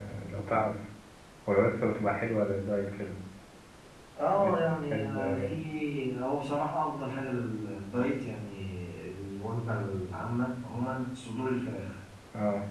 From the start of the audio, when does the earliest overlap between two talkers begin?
4.3 s

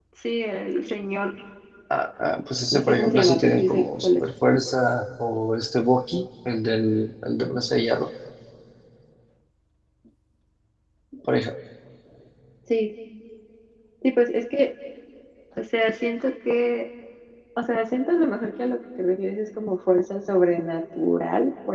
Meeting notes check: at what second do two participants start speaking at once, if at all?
2.7 s

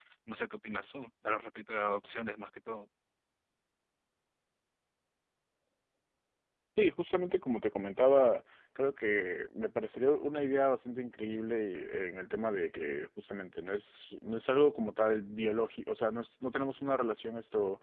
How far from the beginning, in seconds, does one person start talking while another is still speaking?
none

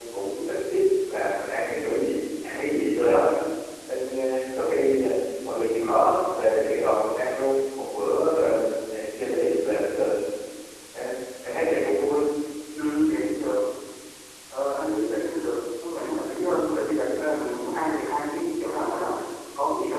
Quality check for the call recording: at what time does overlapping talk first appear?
none

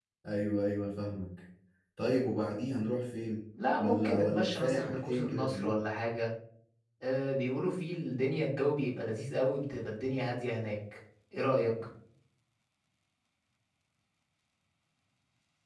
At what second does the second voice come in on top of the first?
3.8 s

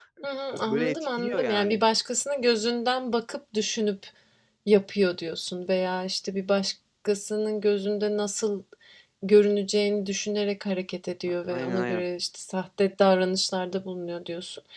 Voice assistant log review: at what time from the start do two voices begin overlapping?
0.5 s

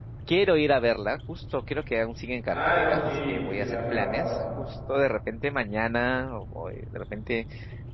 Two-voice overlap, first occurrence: 2.5 s

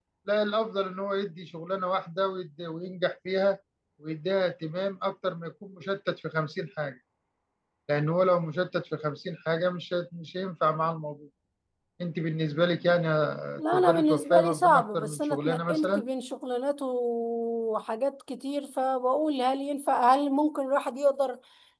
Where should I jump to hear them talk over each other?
13.7 s

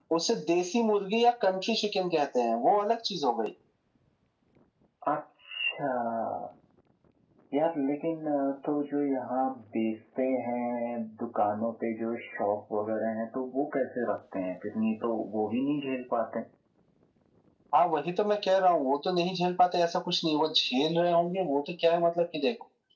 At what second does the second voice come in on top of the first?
none

